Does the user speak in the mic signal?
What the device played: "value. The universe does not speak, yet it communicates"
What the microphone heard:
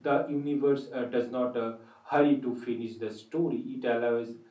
Yes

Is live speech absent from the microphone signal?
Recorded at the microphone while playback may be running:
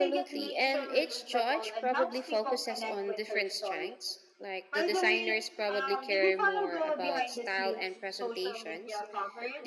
No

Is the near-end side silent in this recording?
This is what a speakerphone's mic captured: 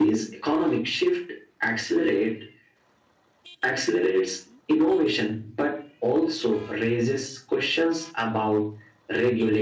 Yes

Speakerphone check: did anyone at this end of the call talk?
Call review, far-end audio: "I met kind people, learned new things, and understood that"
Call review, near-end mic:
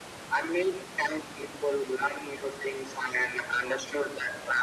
No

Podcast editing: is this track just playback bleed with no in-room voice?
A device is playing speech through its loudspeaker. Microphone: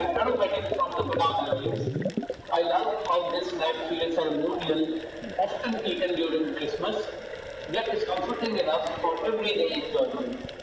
Yes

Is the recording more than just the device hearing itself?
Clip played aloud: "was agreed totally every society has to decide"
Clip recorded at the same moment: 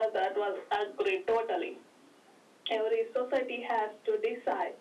No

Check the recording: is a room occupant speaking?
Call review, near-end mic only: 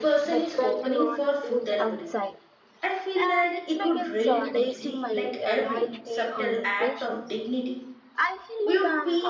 Yes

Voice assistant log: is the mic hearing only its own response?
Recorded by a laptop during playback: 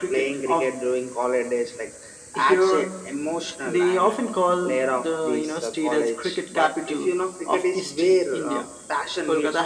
Yes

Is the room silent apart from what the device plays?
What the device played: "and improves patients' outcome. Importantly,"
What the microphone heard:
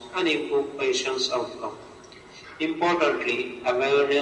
Yes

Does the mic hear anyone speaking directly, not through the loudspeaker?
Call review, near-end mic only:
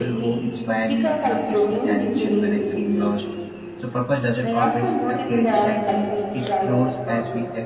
Yes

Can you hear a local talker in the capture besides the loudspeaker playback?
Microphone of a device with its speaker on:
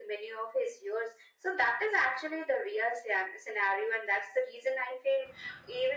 No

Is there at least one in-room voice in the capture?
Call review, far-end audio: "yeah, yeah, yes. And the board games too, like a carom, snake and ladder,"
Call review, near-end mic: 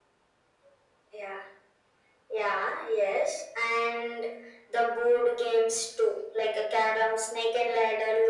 No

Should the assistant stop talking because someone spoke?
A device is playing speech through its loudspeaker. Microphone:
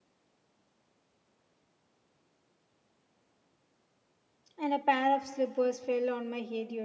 Yes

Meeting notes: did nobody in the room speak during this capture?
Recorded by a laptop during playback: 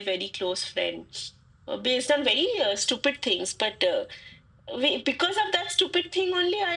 Yes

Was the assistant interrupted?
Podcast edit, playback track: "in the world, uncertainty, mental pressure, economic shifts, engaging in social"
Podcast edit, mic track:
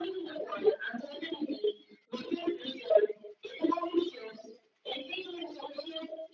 No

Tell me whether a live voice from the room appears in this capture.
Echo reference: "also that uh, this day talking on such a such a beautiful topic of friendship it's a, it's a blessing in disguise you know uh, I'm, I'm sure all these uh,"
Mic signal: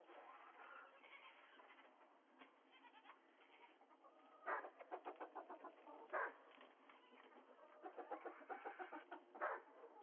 No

